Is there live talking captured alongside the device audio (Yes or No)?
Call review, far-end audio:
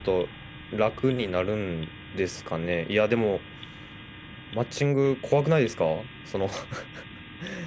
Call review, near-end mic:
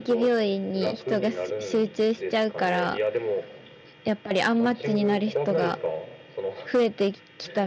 Yes